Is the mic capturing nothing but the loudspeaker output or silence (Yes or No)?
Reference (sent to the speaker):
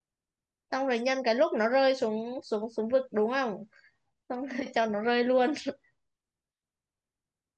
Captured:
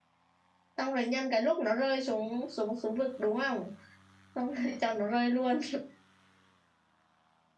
Yes